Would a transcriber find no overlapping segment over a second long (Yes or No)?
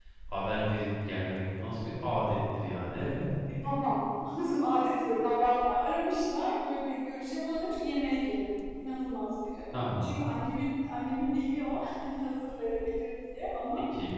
Yes